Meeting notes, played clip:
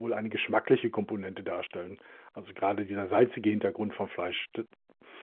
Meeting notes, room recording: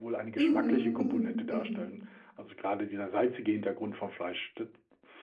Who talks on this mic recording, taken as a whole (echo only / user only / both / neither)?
both